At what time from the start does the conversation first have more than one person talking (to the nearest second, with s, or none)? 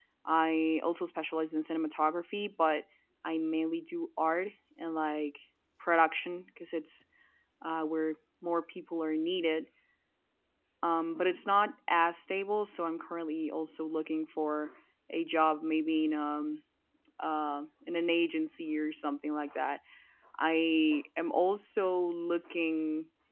none